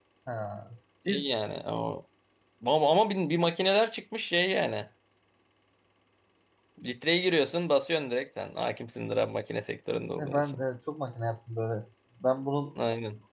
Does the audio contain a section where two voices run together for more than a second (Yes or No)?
No